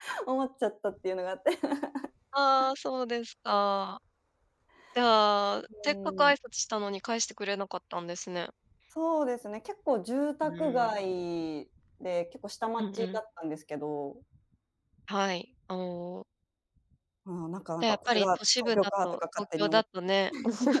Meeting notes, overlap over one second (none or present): present